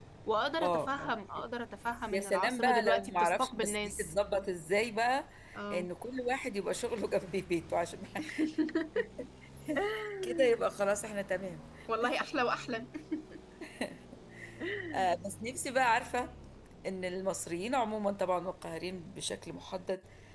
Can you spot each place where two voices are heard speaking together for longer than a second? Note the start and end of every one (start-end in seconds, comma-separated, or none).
2.1-4.1